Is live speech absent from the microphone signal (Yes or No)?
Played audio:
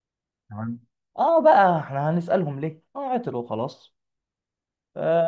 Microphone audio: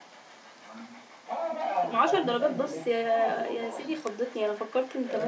No